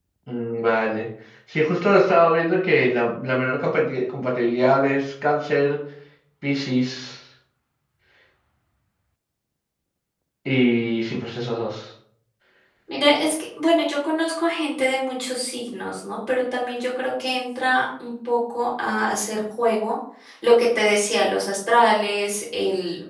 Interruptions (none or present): none